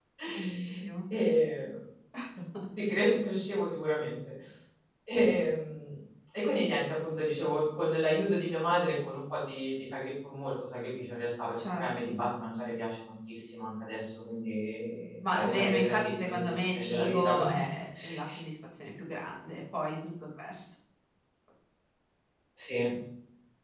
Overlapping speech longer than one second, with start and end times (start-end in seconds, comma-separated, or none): 15.3-17.6